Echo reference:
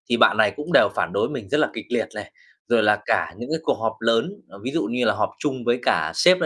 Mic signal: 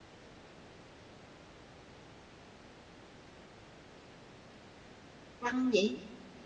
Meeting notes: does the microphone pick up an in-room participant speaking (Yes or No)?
Yes